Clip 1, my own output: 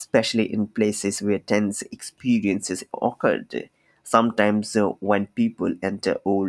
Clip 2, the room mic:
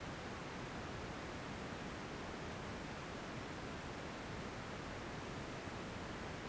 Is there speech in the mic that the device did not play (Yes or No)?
No